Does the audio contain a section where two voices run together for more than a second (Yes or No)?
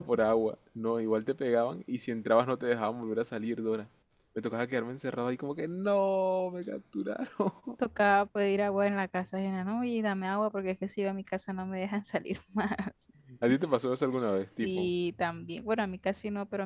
No